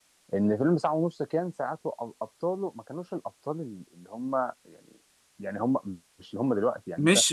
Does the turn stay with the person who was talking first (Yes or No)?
No